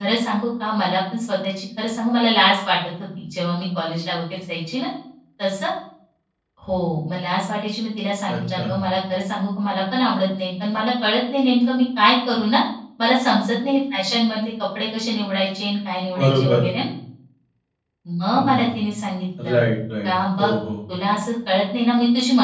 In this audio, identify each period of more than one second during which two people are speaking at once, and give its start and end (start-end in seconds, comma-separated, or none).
none